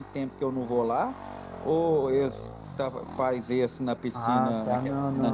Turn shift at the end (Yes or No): Yes